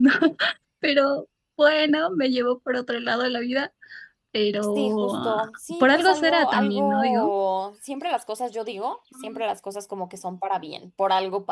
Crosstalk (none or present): present